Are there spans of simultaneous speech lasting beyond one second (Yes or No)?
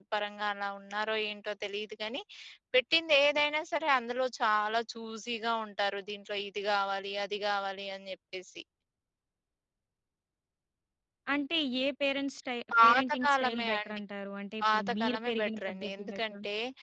Yes